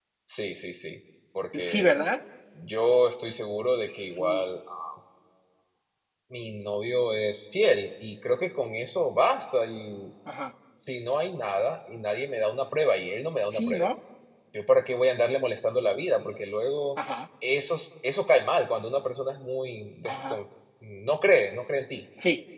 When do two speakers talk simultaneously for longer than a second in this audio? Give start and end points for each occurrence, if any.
none

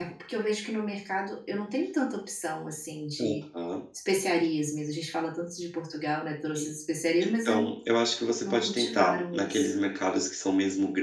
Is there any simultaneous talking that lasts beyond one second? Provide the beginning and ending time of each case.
8.4-9.7

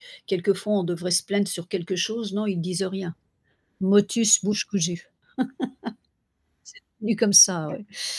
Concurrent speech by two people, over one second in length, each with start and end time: none

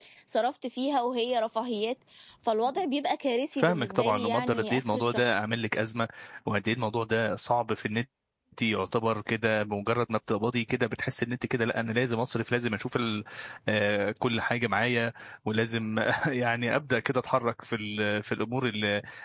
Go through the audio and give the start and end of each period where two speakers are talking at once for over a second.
3.5-5.3

